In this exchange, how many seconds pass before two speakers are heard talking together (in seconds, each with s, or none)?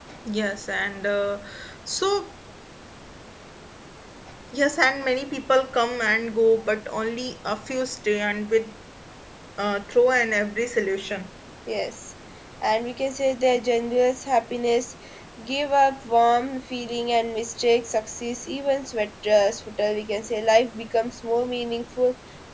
none